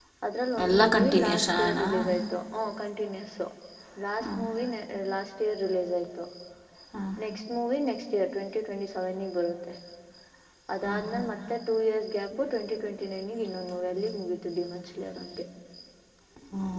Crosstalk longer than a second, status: present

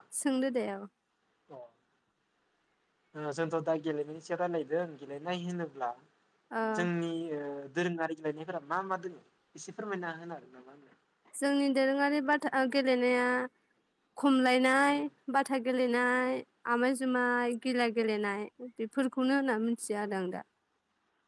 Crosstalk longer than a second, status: none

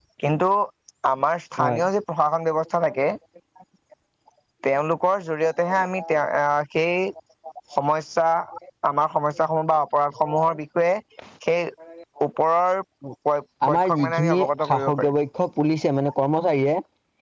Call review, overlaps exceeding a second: present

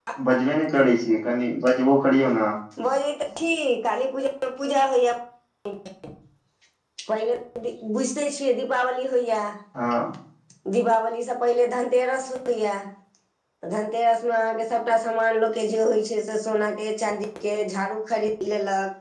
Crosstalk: none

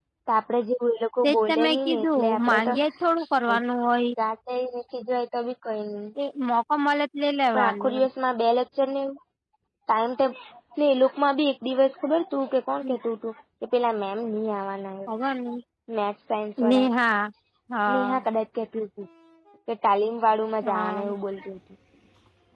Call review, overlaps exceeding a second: present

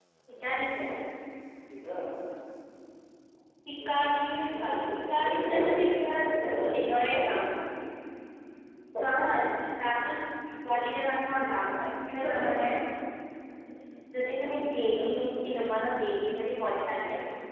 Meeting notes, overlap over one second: present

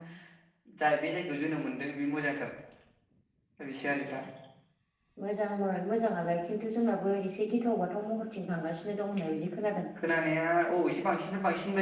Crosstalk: none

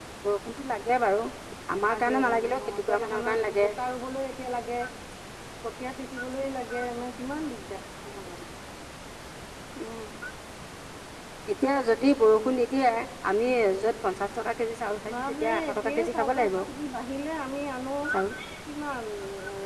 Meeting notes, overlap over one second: present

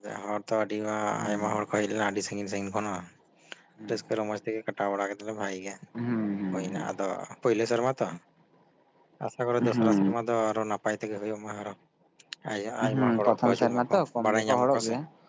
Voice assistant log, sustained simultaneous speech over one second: present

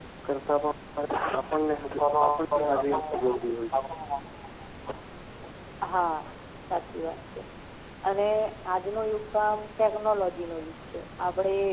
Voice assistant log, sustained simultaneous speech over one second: present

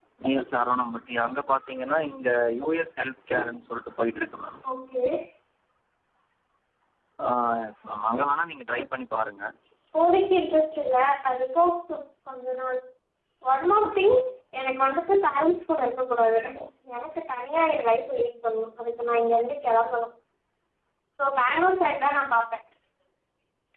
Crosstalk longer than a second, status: none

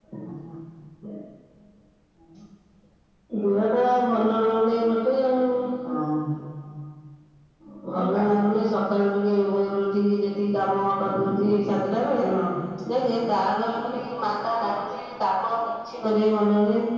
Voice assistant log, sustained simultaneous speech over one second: none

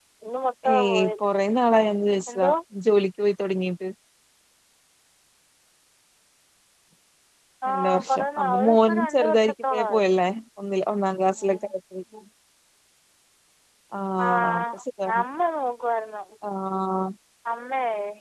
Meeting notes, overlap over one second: present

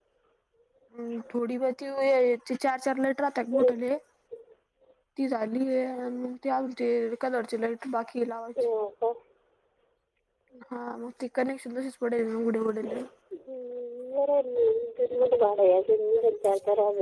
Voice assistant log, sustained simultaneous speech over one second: none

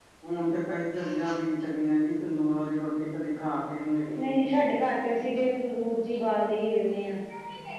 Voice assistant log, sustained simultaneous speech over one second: none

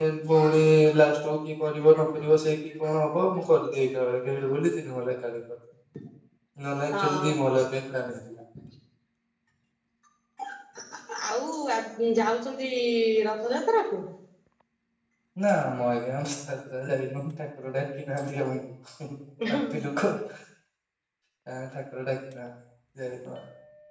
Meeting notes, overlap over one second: none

